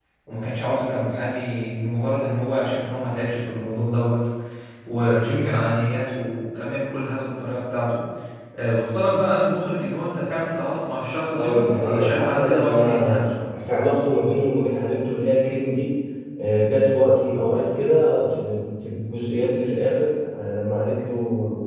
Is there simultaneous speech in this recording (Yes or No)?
Yes